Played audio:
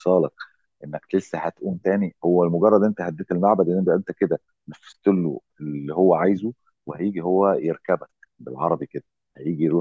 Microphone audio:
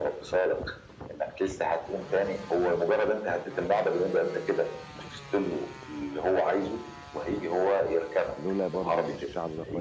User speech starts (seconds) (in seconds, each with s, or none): 8.4 s